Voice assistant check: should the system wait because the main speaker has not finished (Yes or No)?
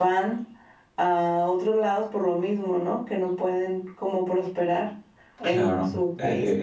No